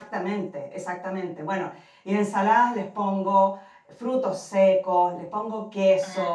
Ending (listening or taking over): listening